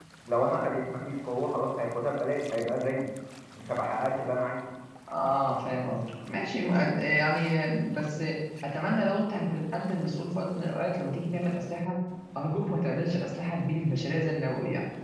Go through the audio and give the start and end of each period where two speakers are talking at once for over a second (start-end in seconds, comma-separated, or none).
none